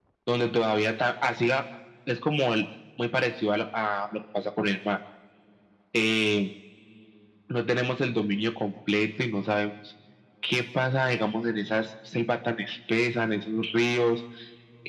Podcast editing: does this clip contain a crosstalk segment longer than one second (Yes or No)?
No